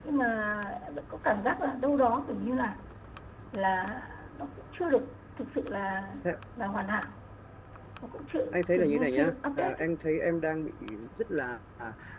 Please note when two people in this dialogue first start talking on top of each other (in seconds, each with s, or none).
8.5 s